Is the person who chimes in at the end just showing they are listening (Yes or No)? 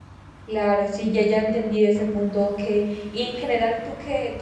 Yes